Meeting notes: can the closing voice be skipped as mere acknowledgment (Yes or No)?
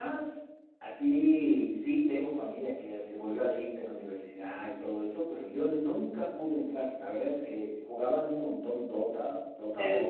No